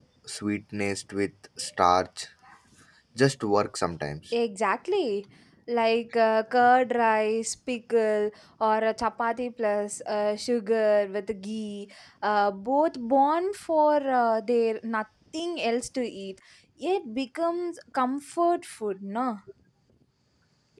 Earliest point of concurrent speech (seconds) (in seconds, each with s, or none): none